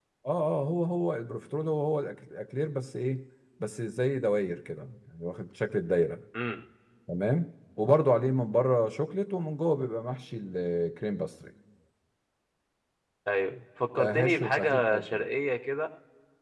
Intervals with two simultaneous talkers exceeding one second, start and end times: 14.0-15.2

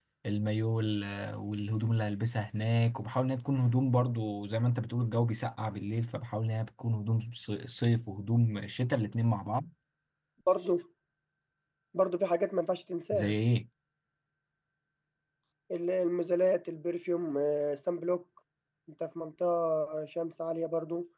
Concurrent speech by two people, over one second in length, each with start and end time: none

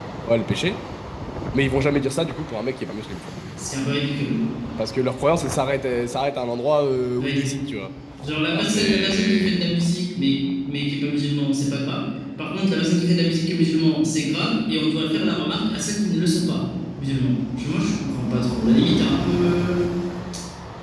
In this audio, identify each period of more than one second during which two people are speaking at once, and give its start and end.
8.5-9.7

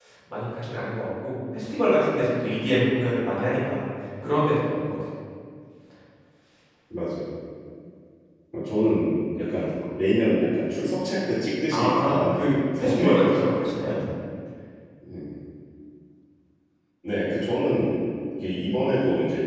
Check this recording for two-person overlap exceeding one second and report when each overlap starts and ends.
11.7-13.7

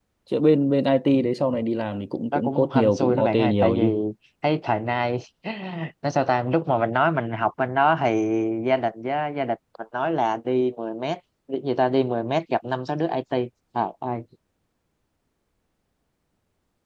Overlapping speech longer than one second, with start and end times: 2.3-4.0

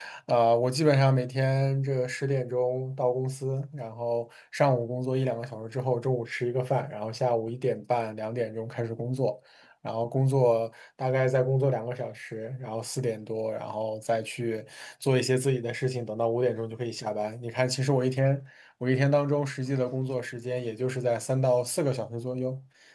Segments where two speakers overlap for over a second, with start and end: none

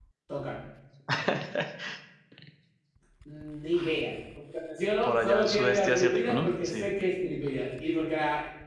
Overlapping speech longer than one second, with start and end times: 5.0-6.9

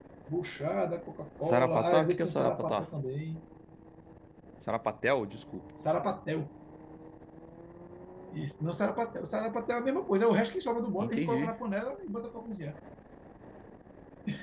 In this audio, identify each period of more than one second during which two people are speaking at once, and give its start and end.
1.5-2.8

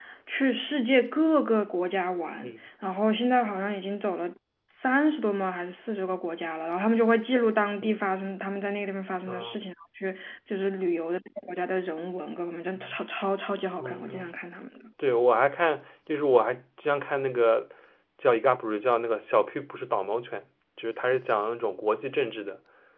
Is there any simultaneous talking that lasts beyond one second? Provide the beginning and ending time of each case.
none

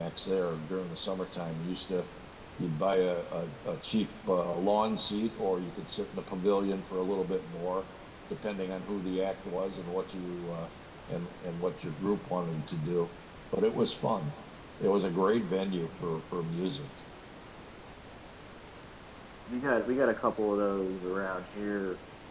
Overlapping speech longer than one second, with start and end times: none

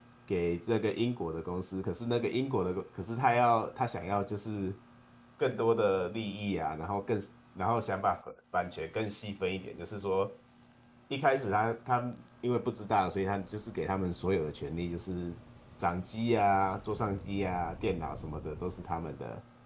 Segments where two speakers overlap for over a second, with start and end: none

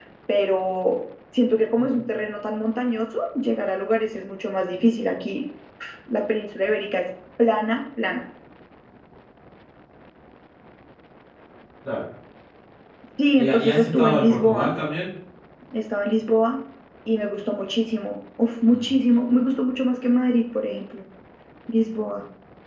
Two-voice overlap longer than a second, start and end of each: 13.4-14.7

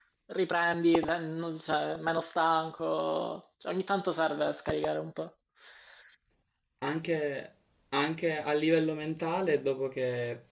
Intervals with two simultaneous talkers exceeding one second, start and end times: none

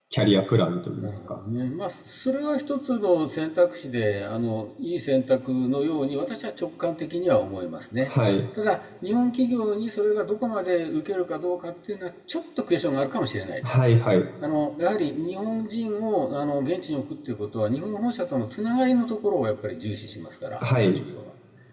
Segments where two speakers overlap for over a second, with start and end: none

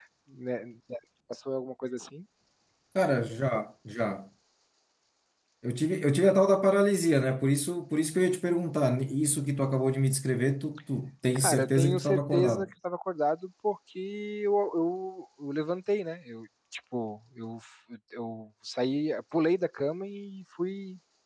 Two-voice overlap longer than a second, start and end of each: 11.4-12.7

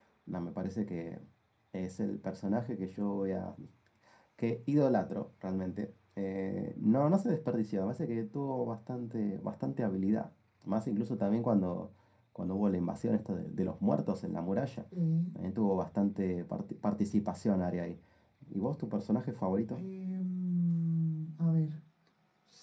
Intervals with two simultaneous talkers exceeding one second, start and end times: none

